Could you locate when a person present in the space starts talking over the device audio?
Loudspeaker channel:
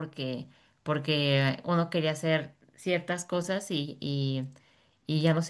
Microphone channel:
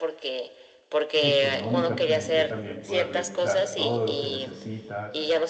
1.2 s

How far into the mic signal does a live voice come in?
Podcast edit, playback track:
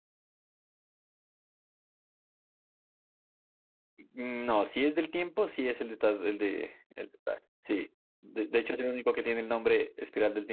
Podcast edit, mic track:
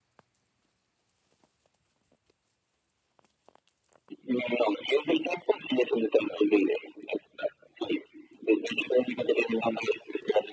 none

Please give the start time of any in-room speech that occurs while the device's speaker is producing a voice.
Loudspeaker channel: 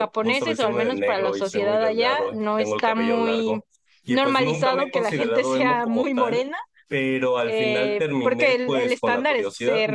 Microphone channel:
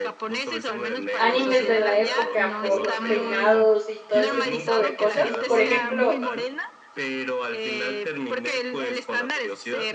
1.1 s

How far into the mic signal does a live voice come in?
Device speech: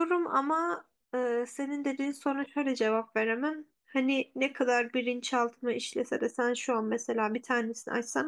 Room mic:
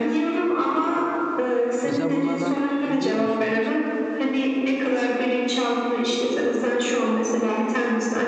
1.8 s

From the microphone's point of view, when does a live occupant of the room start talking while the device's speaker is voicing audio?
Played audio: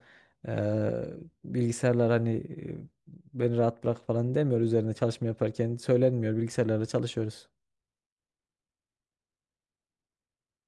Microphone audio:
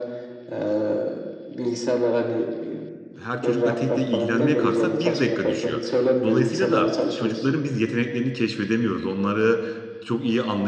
3.2 s

